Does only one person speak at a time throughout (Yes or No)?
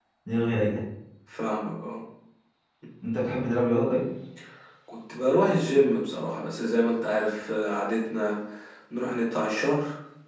Yes